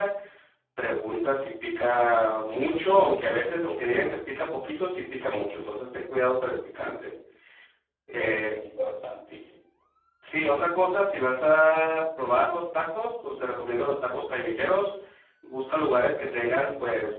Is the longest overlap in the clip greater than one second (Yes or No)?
No